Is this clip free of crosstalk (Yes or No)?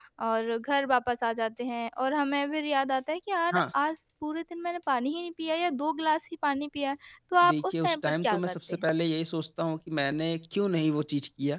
No